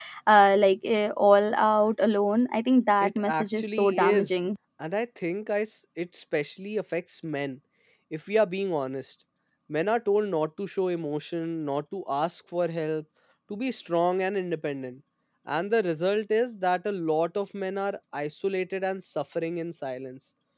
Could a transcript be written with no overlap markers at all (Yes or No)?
No